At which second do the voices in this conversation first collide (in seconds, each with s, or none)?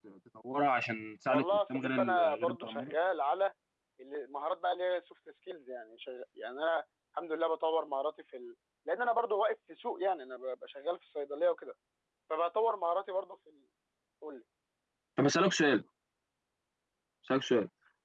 1.3 s